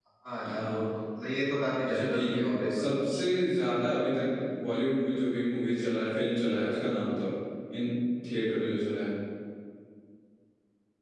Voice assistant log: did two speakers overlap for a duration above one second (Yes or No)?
Yes